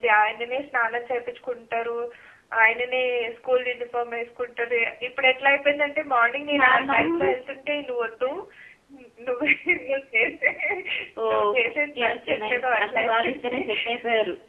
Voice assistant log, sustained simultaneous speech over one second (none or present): present